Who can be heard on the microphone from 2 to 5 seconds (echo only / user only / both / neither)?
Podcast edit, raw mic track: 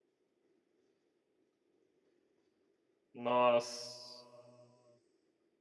user only